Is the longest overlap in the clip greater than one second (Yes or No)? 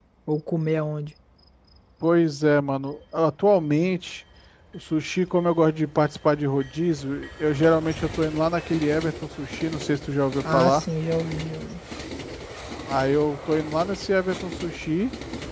No